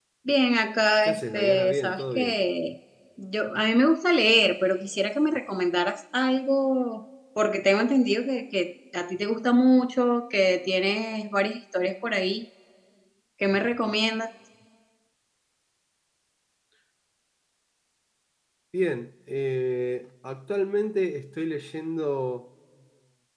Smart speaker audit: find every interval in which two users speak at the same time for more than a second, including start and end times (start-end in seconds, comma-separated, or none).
1.0-2.4